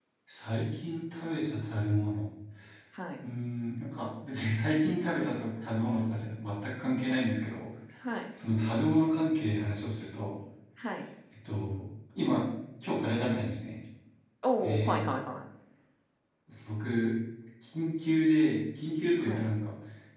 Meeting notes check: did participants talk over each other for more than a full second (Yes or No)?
No